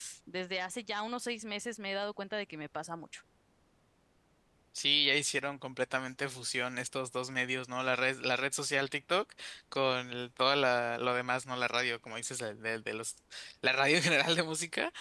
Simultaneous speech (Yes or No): No